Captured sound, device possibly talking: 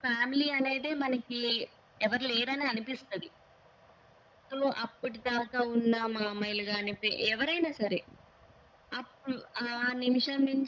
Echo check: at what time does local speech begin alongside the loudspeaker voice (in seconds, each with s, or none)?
none